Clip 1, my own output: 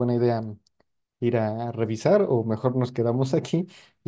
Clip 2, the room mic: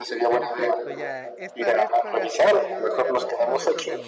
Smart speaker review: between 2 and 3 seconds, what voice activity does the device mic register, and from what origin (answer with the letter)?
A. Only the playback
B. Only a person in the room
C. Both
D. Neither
C